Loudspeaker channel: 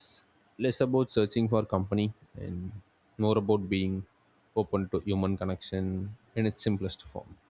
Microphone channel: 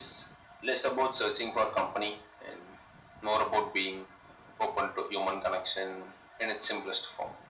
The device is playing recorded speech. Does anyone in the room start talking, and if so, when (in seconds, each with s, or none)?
none